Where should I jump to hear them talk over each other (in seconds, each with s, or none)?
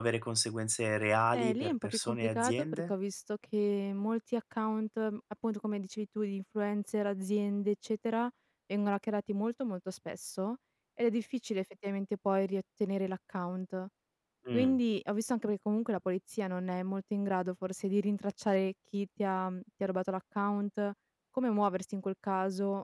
1.4 s